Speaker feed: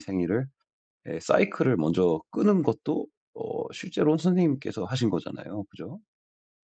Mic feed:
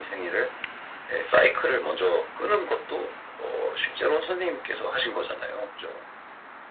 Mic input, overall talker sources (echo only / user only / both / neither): echo only